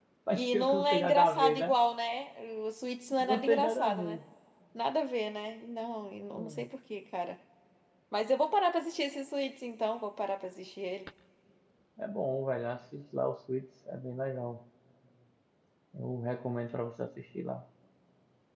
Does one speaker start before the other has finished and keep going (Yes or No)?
Yes